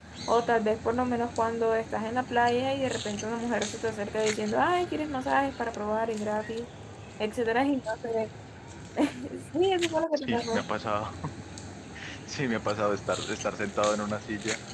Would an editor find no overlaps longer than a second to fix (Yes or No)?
Yes